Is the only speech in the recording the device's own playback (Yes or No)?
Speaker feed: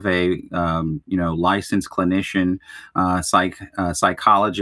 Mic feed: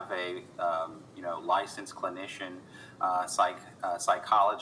Yes